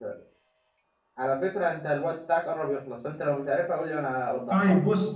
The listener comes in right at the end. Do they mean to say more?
Yes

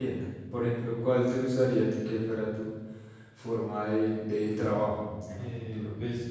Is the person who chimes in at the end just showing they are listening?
No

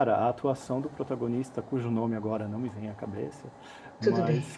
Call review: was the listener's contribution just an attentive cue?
Yes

